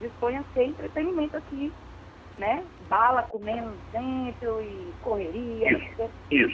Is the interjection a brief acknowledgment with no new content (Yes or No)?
No